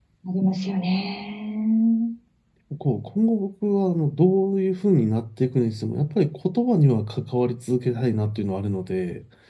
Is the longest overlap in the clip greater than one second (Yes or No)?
No